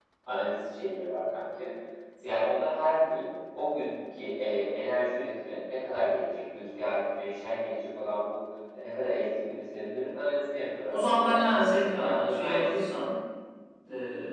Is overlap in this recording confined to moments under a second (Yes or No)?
No